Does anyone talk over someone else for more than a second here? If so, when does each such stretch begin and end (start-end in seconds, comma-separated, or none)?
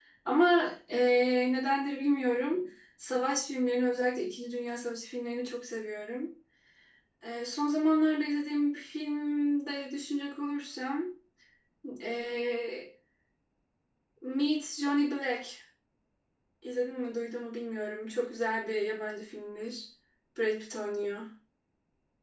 none